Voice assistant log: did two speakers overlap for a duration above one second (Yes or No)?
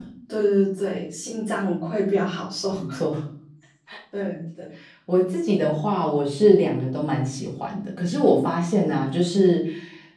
No